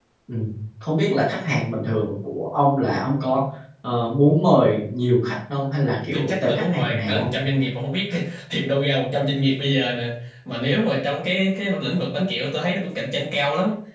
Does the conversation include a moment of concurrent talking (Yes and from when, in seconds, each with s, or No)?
Yes, from 6.1 s